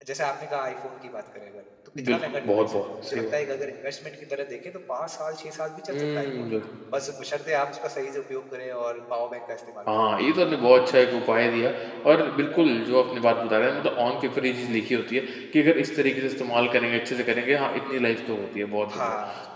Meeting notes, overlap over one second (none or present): present